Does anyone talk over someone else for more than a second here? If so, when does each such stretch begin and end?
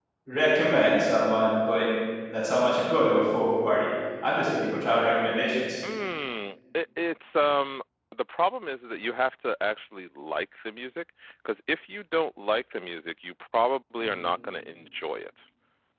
none

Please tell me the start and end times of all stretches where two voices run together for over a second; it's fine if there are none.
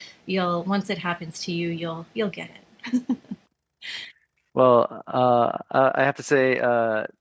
none

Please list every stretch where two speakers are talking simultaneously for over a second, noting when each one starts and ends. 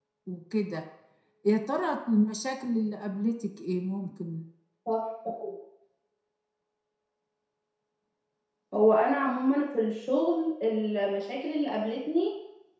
none

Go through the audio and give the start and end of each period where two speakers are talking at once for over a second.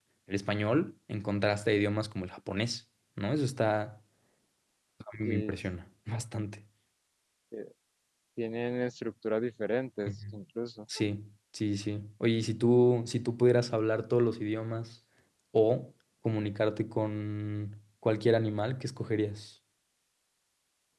none

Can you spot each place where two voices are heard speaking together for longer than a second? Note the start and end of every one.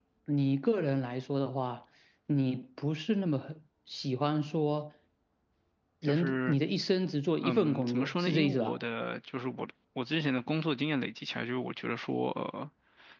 7.4-8.7

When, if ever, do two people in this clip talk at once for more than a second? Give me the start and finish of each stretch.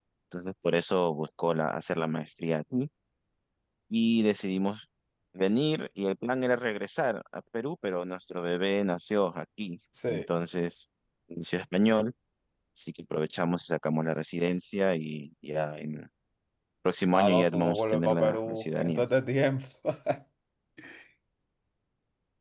17.1-19.0

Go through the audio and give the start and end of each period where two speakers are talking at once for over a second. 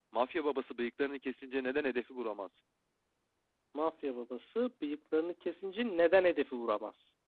none

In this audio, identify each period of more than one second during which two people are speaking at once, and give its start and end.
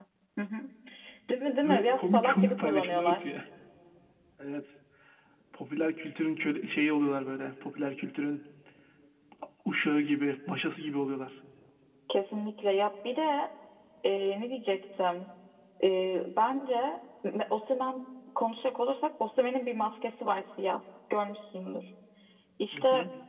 1.6-3.3

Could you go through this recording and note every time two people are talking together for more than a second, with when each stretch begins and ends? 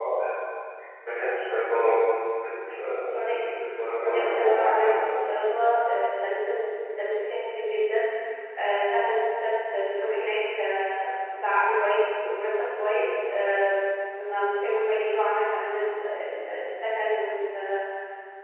3.9-5.3

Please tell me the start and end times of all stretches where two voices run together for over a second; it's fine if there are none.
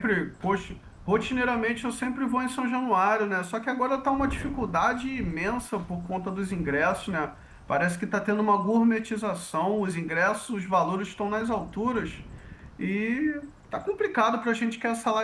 none

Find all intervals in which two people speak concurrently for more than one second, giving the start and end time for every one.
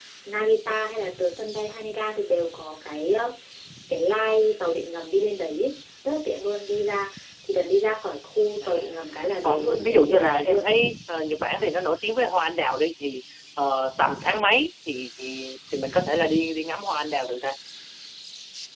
9.4-10.7

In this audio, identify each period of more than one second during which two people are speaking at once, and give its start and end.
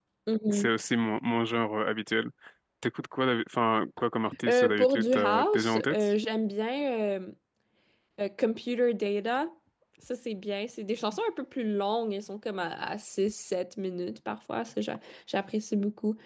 4.5-6.1

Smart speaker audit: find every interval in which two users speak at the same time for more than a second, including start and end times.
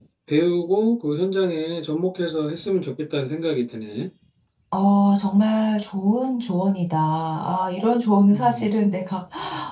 none

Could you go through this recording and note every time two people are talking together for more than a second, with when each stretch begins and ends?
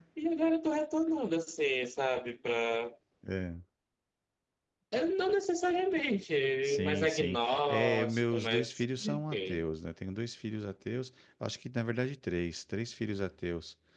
6.6-9.6

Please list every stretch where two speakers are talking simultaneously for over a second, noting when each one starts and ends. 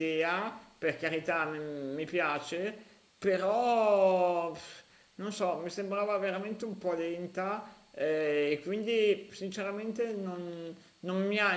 none

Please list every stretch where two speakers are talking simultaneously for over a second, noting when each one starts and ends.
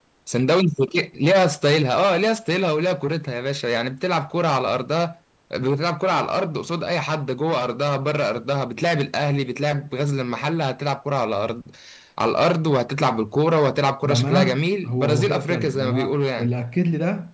14.0-16.5

